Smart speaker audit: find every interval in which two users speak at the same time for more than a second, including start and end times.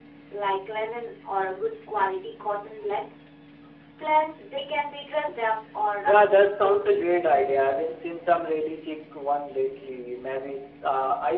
6.0-7.3

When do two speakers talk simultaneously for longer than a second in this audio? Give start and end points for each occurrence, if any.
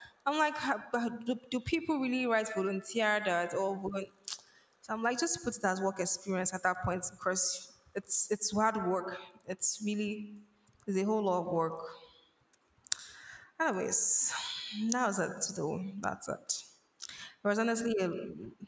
none

